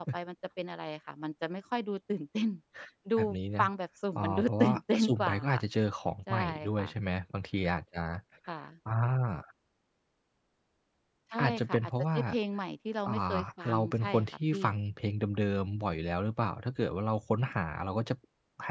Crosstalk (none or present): present